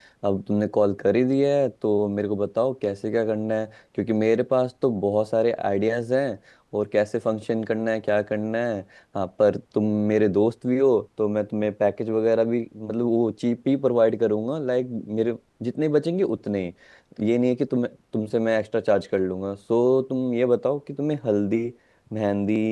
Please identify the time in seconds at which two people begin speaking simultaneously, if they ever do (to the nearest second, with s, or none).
none